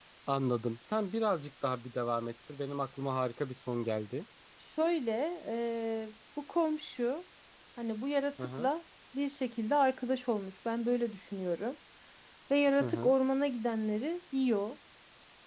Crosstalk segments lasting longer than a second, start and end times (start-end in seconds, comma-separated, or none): none